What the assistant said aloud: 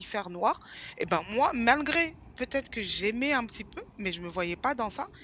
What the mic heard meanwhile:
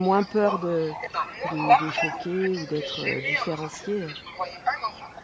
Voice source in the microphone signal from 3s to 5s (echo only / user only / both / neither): both